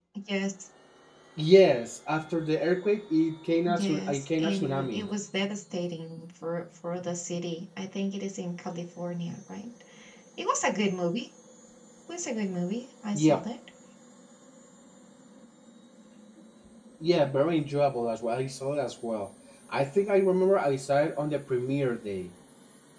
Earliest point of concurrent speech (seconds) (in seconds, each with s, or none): 3.8 s